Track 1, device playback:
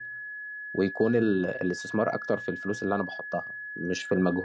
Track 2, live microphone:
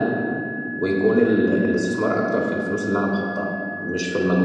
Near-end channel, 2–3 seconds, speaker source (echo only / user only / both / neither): echo only